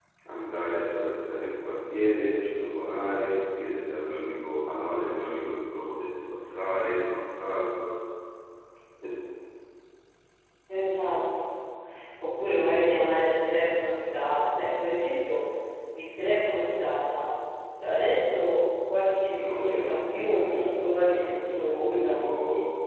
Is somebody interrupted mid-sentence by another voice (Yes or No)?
Yes